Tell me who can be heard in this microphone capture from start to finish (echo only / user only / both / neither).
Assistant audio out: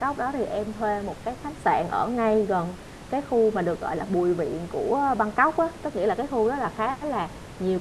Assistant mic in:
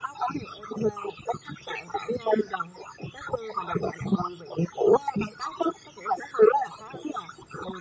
echo only